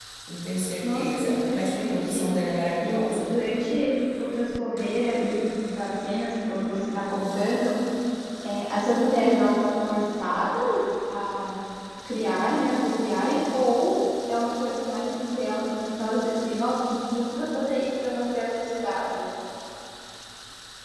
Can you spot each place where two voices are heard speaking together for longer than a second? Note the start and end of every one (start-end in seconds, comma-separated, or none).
0.8-2.3